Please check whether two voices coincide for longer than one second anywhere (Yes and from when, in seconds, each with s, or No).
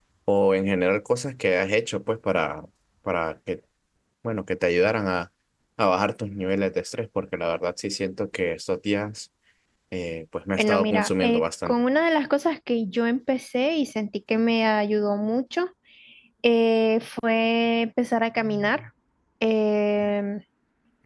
Yes, from 10.6 s